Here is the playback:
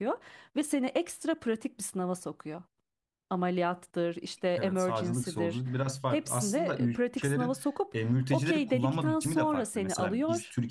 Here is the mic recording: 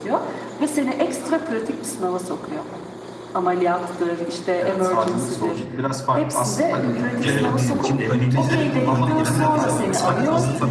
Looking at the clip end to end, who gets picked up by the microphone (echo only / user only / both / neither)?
both